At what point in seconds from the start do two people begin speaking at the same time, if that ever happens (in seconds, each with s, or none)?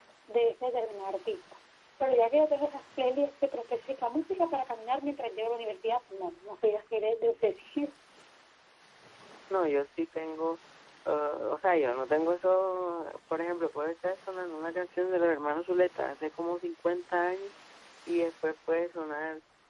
none